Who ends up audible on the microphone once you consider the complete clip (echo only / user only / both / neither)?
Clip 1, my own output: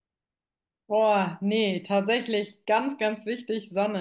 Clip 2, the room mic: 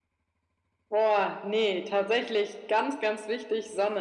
echo only